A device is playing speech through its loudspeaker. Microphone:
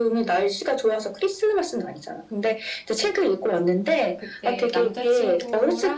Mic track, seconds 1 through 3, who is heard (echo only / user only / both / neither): echo only